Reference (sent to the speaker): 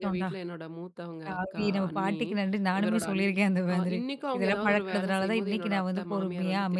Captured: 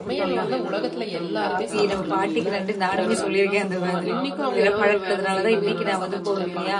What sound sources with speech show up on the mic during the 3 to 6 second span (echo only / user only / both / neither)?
both